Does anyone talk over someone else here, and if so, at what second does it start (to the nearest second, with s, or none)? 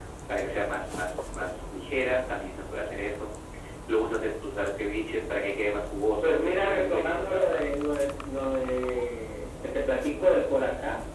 6 s